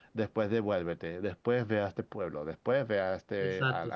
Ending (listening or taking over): taking over